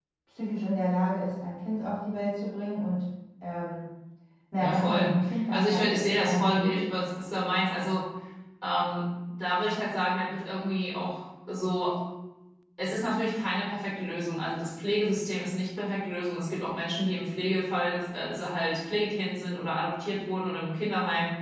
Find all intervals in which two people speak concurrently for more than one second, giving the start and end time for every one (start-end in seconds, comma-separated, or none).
4.6-6.8